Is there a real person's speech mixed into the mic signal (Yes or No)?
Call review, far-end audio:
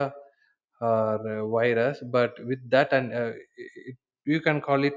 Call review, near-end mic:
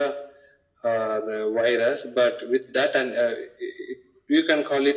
No